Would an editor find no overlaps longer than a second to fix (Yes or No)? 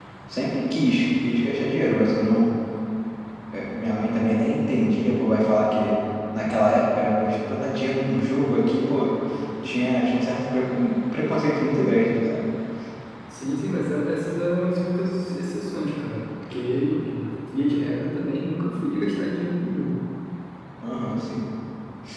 Yes